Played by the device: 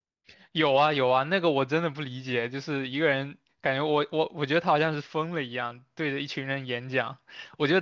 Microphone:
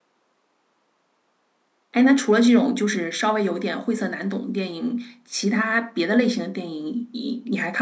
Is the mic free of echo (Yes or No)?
Yes